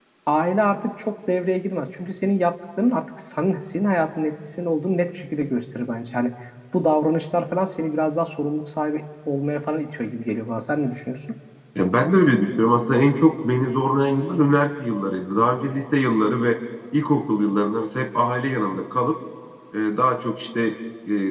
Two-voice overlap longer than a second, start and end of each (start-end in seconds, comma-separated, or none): none